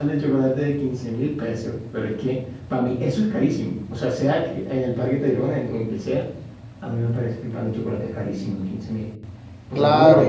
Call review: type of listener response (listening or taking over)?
taking over